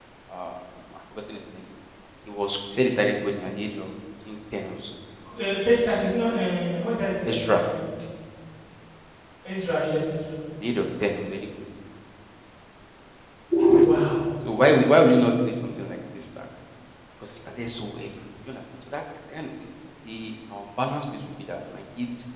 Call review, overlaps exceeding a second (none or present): none